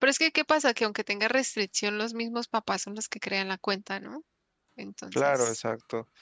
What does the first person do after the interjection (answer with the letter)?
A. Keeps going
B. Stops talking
B